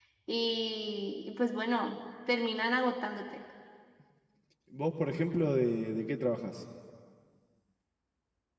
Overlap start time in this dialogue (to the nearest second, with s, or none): none